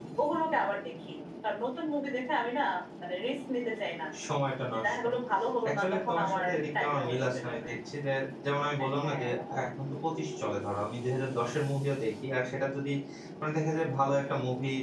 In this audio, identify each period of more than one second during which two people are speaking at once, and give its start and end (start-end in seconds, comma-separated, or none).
5.8-7.7